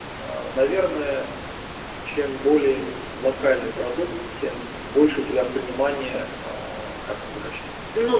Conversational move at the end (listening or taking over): taking over